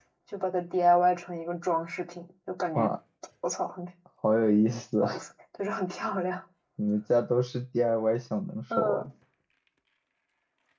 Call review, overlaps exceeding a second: none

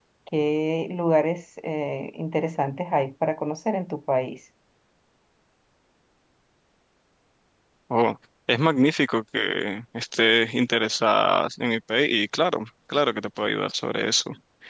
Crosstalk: none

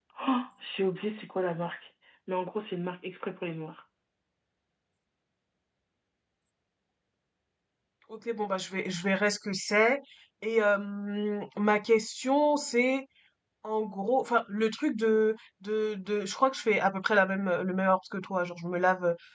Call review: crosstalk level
none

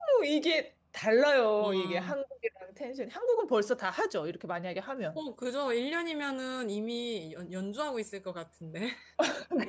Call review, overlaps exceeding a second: none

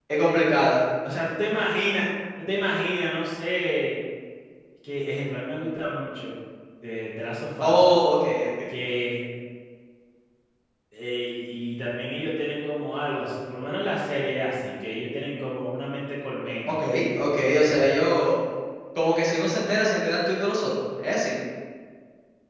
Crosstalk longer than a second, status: none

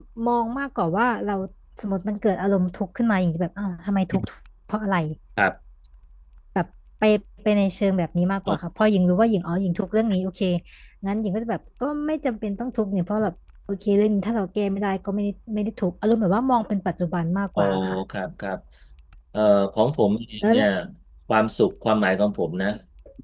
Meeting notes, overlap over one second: none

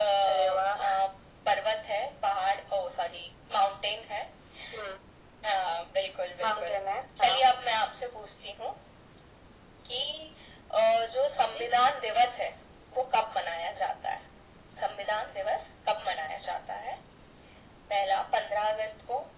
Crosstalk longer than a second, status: none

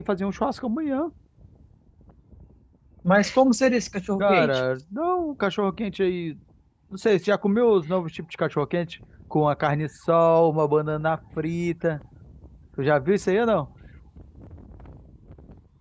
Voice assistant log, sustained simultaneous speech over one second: none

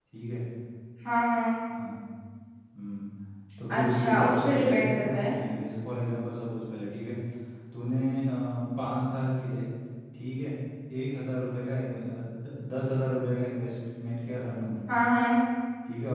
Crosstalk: present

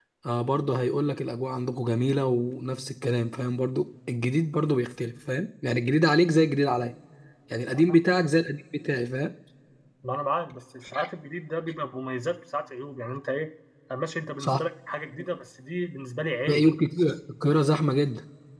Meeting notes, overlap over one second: none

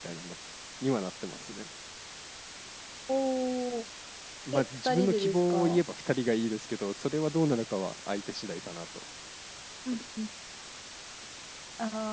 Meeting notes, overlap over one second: present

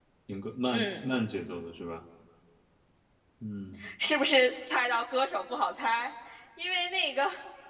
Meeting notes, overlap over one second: none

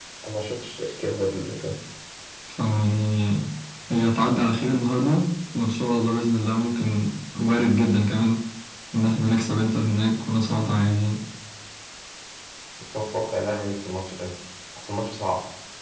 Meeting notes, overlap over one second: none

